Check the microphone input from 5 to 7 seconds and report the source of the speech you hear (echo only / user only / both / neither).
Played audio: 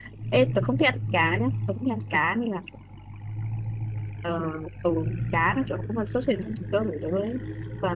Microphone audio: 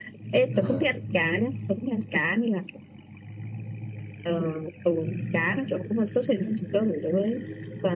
echo only